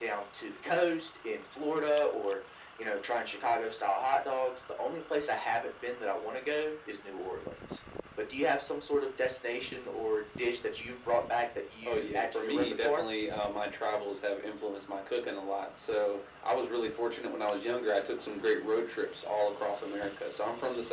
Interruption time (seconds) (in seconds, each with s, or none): 11.8 s